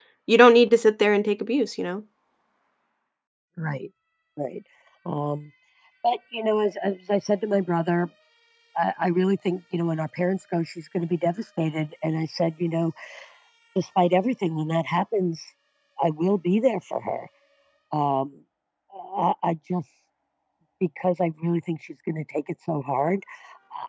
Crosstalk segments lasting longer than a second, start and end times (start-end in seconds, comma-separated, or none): none